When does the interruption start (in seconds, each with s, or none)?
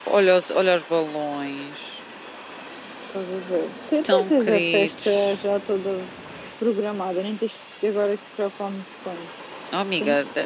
4.1 s